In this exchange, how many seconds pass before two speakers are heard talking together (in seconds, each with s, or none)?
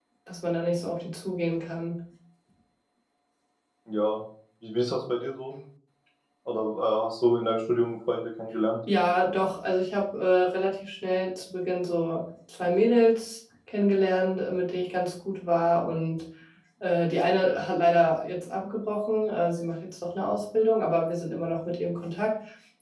none